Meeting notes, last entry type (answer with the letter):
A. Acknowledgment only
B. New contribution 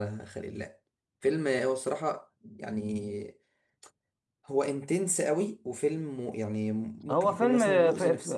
B